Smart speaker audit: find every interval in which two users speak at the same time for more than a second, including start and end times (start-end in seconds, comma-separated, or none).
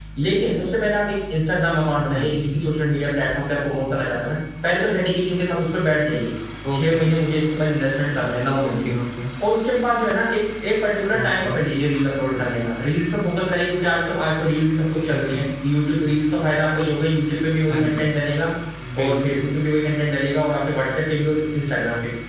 none